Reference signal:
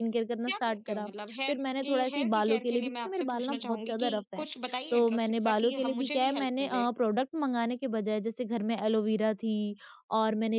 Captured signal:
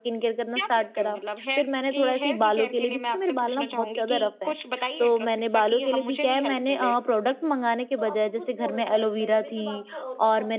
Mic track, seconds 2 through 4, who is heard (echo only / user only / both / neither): echo only